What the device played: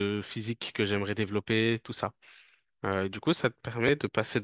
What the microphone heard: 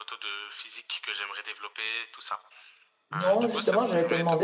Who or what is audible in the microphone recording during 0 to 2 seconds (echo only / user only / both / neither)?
echo only